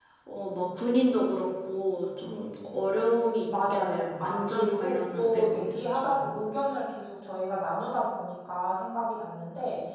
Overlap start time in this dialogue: 3.5 s

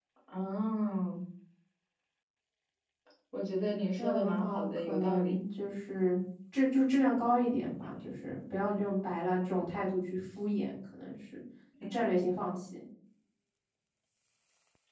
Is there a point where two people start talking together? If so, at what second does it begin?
4.0 s

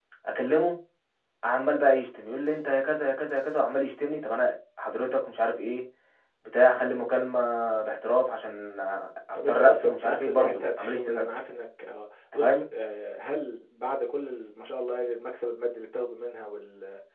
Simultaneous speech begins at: 9.3 s

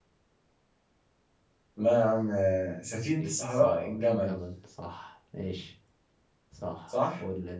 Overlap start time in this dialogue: 2.9 s

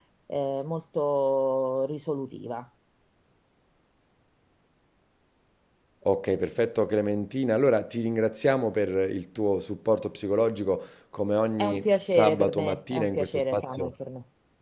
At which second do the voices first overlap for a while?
11.6 s

